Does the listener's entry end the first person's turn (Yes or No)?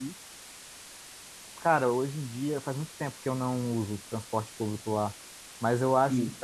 No